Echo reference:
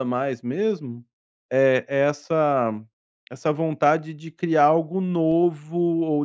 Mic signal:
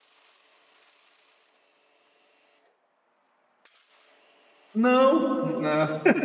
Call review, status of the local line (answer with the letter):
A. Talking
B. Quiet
A